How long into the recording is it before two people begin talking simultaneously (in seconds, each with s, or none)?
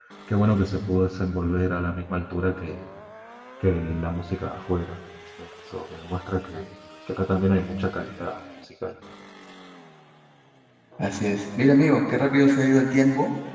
none